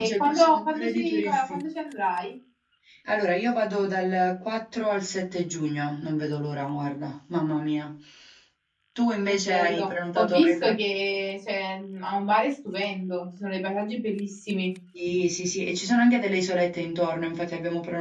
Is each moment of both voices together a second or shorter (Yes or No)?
No